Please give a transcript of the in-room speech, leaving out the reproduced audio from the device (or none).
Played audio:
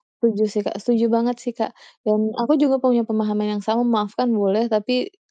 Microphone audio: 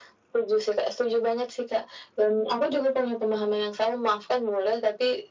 none